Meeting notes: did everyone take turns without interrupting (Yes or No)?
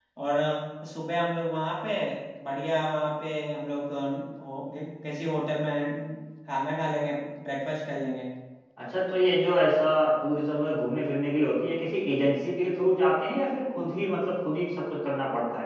Yes